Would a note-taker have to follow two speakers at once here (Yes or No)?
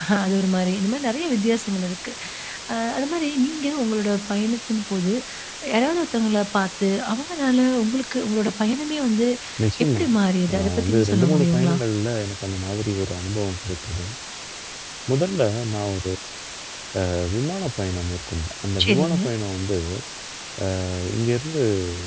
Yes